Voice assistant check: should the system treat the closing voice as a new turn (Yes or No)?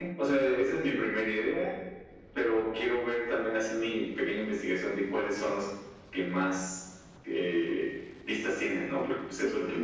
Yes